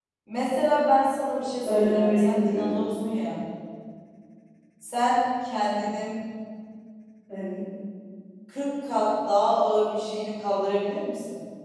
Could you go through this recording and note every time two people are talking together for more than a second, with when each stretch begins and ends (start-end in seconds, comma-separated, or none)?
1.6-2.8